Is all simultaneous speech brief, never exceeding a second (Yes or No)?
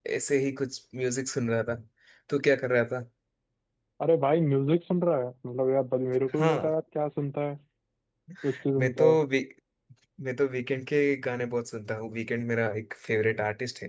Yes